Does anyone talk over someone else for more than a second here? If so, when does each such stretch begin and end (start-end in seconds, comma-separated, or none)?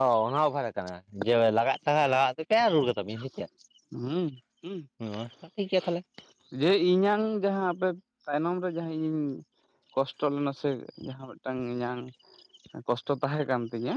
none